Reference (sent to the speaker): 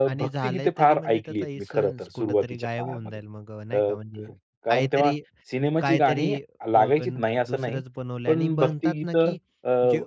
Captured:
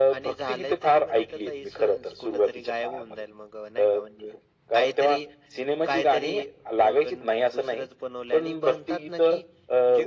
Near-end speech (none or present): none